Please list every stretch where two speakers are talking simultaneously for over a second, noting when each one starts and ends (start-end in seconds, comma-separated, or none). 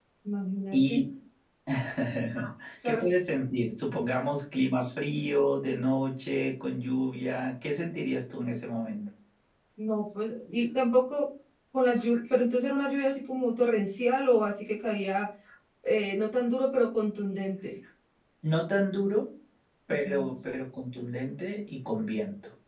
none